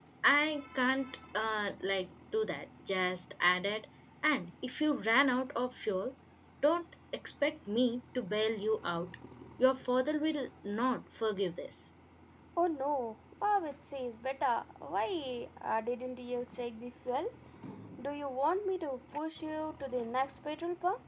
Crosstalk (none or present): none